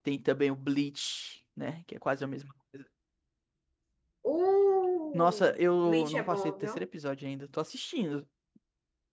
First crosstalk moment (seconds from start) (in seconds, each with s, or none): 5.1 s